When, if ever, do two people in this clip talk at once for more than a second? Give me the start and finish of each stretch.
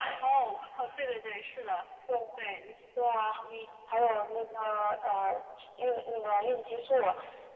none

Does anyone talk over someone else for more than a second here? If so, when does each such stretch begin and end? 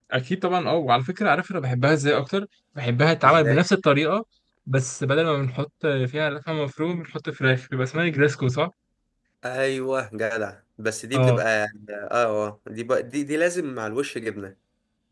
none

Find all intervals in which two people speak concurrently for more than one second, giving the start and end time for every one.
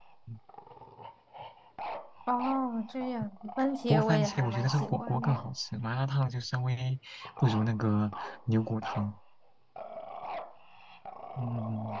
3.9-5.4

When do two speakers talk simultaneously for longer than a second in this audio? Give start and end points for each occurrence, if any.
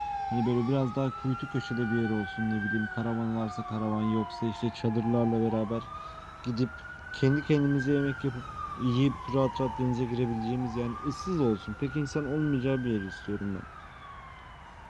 none

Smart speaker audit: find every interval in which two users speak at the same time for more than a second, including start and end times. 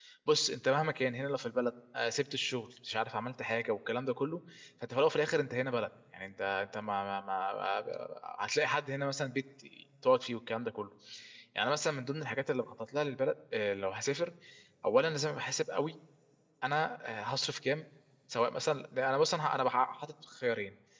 none

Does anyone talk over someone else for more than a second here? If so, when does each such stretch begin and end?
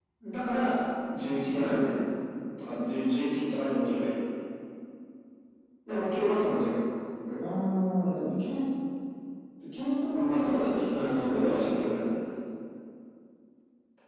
10.1-11.8

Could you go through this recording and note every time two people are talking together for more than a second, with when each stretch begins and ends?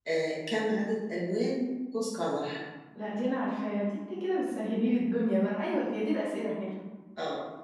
none

